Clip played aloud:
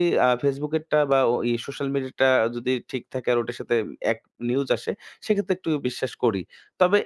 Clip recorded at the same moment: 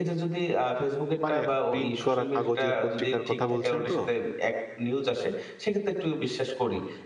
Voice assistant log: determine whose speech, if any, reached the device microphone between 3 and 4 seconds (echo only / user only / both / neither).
both